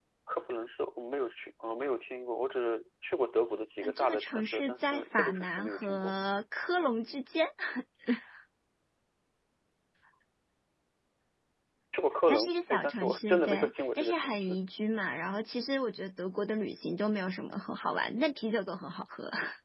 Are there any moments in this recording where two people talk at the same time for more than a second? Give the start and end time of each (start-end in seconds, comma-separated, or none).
3.8-6.1, 12.3-14.6